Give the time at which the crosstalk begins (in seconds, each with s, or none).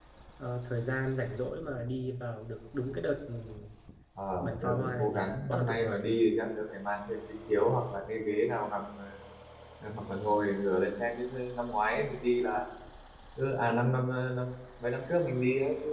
4.4 s